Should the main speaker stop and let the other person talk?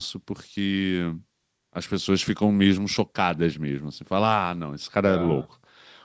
No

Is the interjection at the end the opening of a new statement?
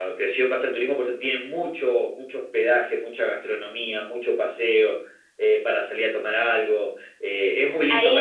Yes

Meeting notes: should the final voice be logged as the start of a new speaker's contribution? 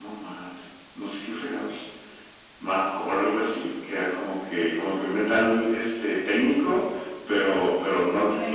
No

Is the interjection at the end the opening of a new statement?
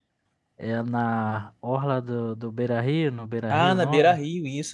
Yes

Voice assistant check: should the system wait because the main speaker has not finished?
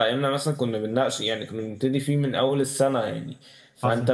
Yes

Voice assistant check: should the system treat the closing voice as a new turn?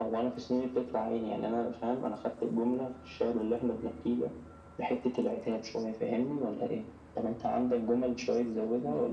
Yes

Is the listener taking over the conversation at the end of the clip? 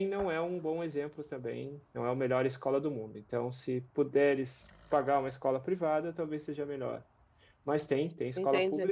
Yes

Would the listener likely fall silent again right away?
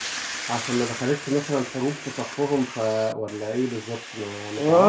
No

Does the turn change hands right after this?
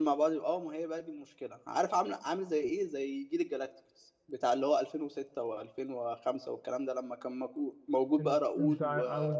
Yes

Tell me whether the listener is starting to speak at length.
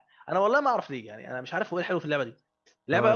Yes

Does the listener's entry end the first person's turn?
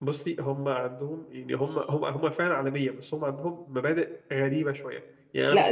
Yes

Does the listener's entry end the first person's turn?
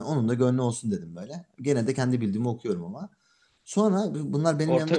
No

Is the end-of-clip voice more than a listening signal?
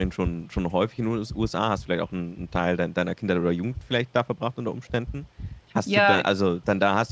No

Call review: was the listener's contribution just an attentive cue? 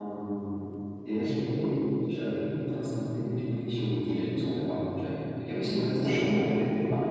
Yes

